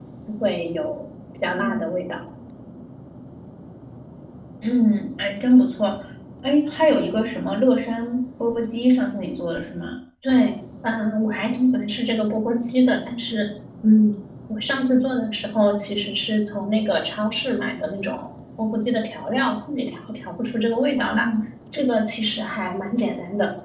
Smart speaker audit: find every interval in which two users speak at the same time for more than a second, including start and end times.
none

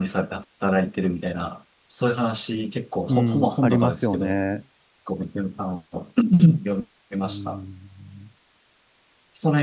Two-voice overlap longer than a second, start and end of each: 3.1-4.3

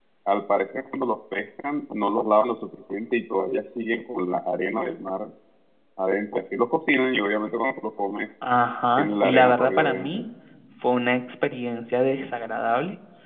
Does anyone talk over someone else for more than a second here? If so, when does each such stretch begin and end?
9.0-10.2

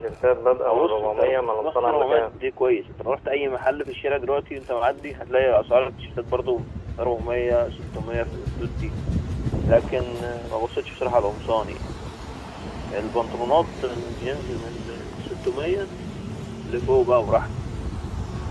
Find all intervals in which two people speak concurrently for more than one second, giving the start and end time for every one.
0.6-2.3

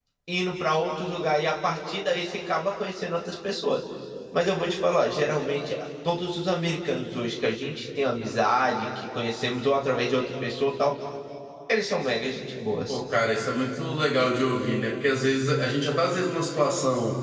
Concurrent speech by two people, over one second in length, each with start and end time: none

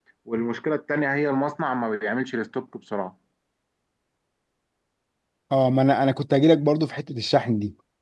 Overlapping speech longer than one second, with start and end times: none

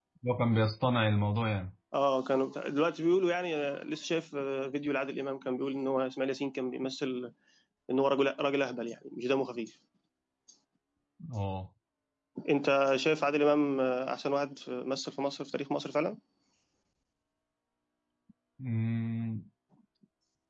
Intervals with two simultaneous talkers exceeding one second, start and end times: none

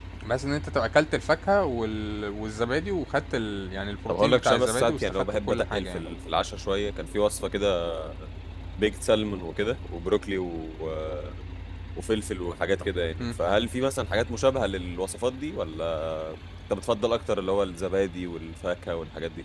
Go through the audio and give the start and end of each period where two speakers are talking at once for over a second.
4.1-6.0

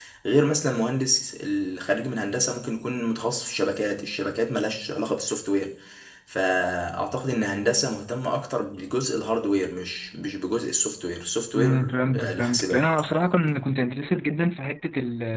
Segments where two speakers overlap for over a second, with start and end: 11.5-12.9

